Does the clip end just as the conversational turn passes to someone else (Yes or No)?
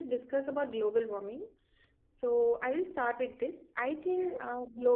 No